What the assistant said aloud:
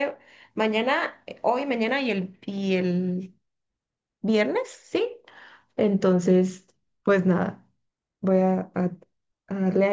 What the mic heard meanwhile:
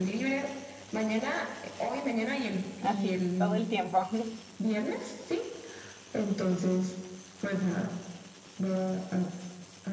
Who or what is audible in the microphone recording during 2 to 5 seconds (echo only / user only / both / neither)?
both